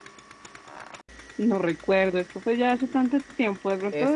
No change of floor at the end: No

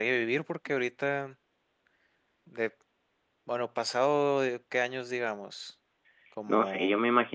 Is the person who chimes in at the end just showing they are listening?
No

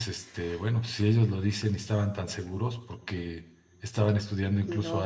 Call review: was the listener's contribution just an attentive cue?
Yes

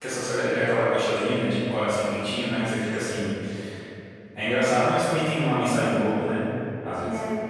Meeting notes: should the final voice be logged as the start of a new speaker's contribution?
Yes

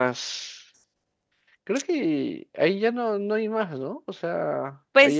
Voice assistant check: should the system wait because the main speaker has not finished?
No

